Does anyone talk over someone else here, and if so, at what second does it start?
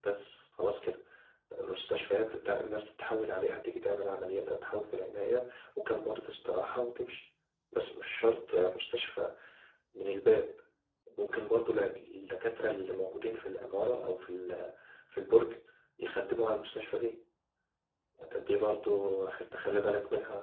none

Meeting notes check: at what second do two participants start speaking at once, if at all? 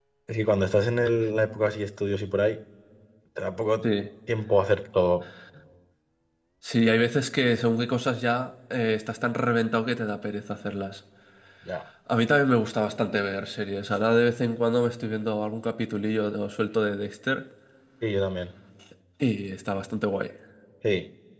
none

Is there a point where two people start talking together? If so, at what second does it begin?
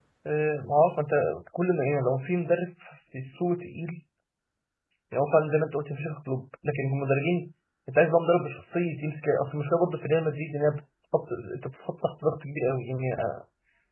none

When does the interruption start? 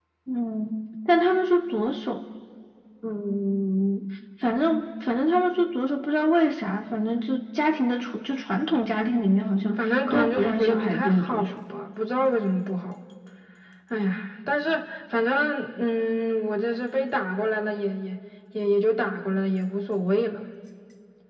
9.8 s

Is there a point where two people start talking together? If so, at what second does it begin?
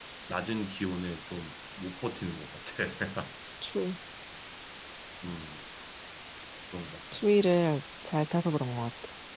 none

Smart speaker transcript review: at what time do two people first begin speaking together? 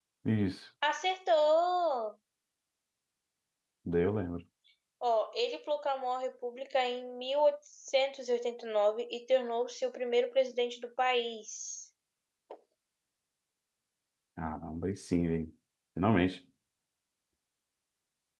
none

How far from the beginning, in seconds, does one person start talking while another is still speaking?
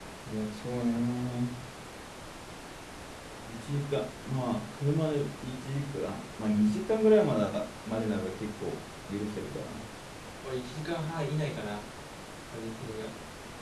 none

